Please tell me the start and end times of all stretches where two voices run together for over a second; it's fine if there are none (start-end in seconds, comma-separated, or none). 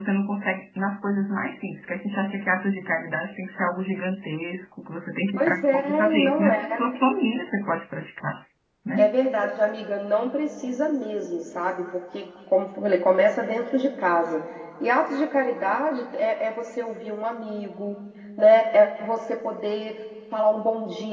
5.4-6.6